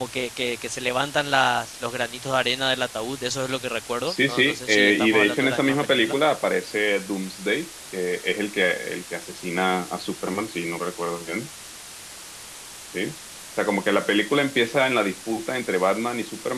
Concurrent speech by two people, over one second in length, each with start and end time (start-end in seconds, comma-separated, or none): 4.1-6.2